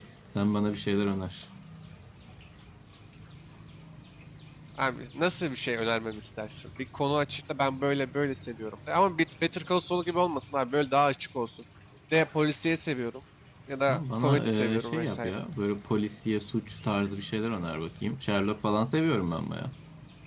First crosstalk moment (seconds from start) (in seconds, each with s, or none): 13.9 s